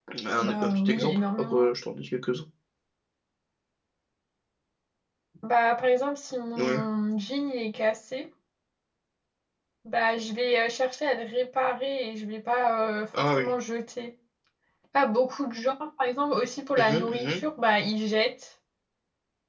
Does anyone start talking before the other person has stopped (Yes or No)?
Yes